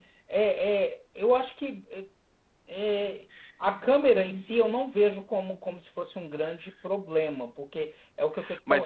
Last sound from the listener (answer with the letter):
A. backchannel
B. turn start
B